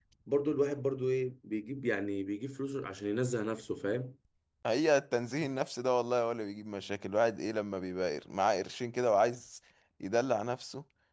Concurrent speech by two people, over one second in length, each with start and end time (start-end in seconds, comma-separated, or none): none